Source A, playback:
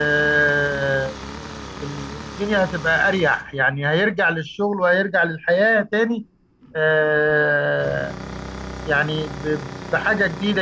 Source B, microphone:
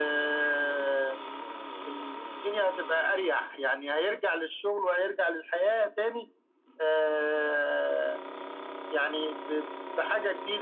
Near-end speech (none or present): none